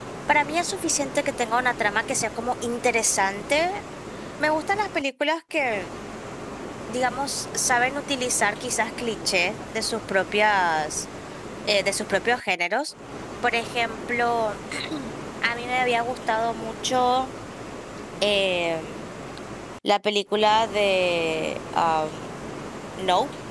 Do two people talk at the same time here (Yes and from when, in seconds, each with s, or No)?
No